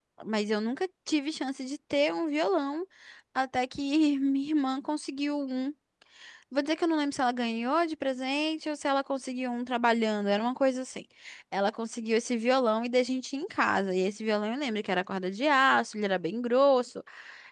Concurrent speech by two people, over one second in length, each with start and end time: none

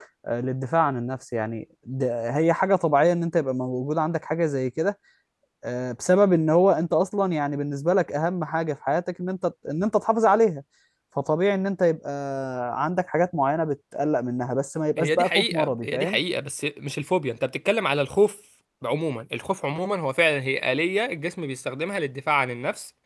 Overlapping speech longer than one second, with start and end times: 15.0-16.2

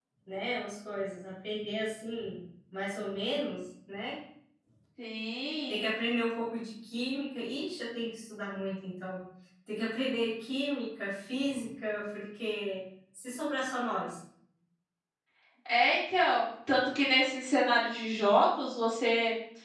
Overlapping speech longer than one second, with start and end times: none

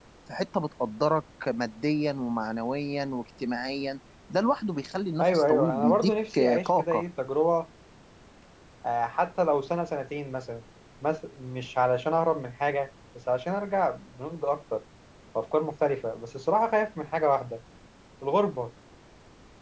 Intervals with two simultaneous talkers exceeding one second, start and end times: 5.2-7.0

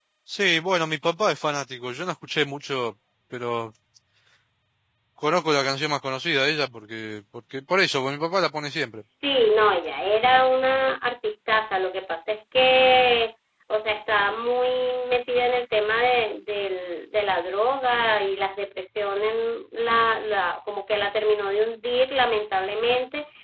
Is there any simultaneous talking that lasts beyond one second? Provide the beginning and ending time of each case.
none

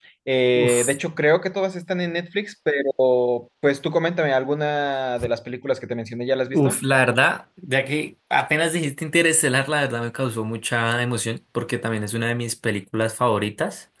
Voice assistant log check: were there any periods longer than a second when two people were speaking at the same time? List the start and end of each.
none

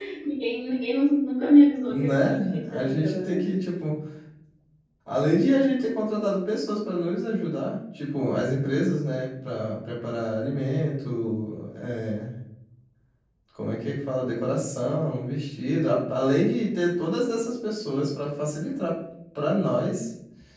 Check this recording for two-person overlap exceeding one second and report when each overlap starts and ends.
1.9-3.4

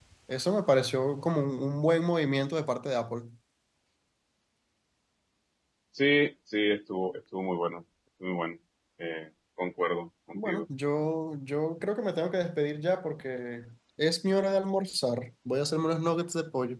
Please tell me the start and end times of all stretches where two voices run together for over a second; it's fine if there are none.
none

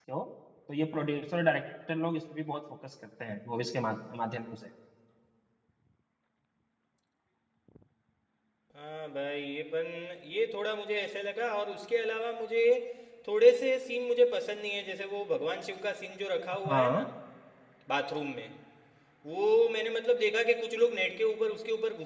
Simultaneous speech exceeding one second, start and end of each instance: none

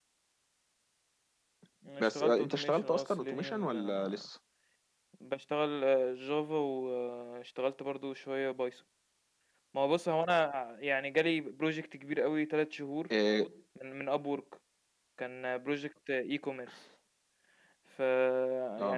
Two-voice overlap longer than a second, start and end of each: 2.0-4.2

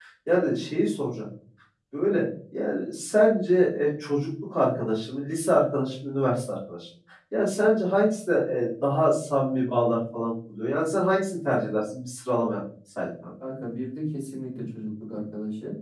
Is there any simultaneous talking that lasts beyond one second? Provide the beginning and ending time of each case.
none

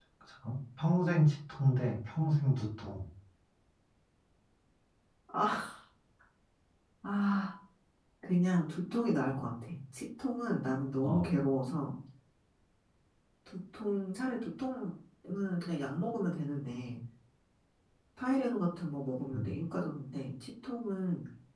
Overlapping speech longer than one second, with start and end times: none

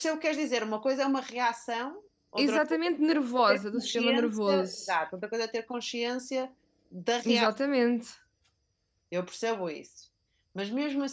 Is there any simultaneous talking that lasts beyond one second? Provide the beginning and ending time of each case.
3.5-4.9

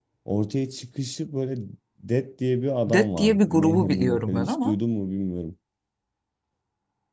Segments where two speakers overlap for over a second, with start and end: 2.9-4.8

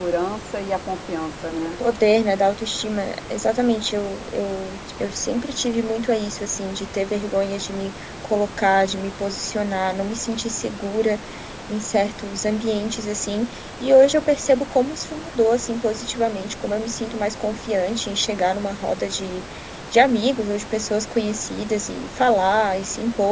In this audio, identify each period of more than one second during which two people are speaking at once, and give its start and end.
none

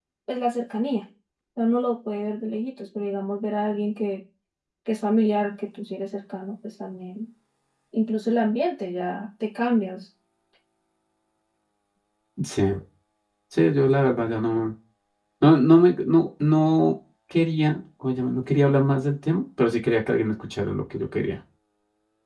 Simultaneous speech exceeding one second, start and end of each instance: none

